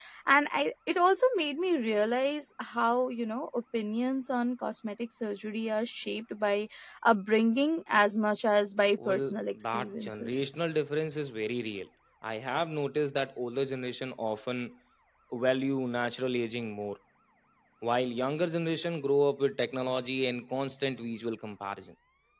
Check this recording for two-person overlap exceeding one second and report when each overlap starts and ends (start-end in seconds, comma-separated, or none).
9.1-10.5